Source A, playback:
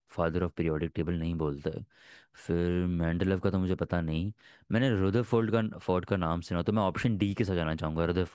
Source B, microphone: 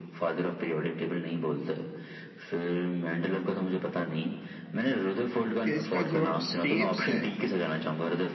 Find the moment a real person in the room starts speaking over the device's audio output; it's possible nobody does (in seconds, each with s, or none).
5.6 s